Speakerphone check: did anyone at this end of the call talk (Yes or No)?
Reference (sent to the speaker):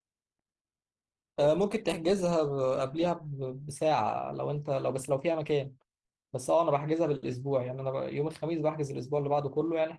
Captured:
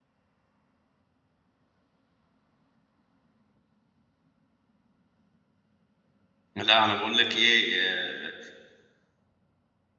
Yes